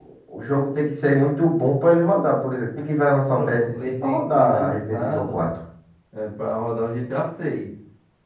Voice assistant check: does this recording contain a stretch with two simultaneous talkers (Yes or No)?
Yes